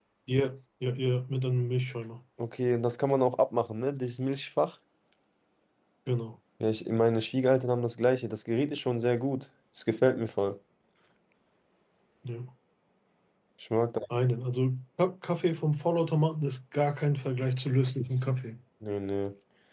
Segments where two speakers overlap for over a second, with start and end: none

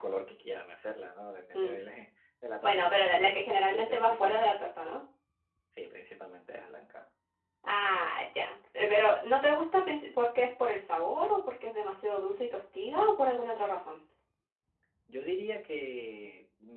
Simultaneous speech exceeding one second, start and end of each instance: 2.6-4.5

